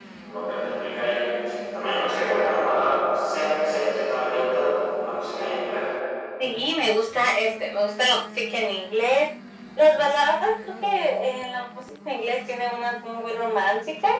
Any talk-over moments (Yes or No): No